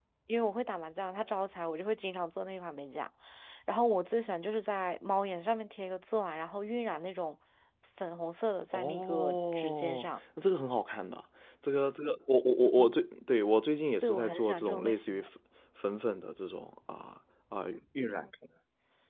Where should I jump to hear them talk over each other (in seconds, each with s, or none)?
8.7 s